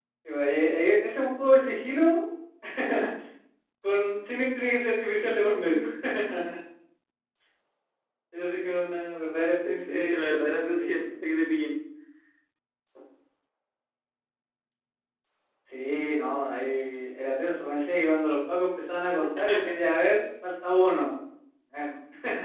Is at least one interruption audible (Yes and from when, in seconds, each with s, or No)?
Yes, from 9.6 s